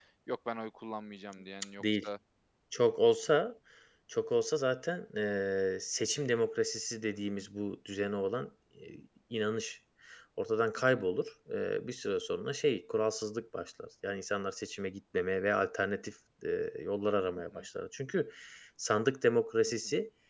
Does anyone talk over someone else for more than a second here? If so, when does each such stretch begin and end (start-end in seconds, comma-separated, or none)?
none